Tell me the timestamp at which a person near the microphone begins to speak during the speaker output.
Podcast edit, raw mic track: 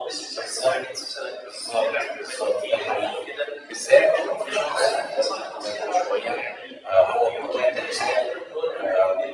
none

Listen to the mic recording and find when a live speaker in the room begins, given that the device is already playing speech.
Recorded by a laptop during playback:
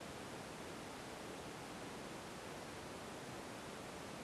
none

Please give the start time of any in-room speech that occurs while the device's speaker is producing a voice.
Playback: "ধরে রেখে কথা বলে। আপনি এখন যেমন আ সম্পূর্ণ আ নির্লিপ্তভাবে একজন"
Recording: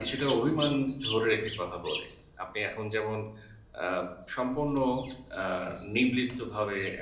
none

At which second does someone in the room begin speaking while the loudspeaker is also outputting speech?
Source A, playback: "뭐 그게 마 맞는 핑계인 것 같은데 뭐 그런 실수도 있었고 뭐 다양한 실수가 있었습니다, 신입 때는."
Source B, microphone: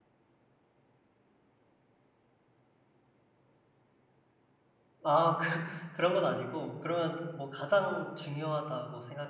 5 s

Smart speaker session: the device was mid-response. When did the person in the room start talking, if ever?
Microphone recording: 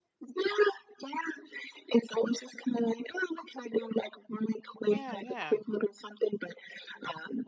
5 s

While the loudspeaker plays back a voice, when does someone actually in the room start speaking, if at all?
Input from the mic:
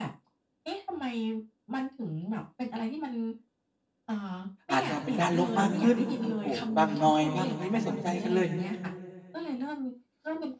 5 s

